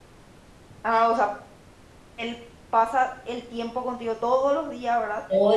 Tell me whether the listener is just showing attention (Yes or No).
No